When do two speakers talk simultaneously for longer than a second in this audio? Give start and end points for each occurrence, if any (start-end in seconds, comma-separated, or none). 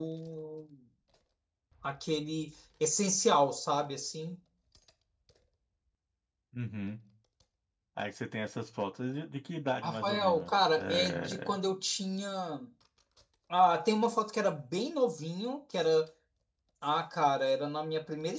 9.8-11.6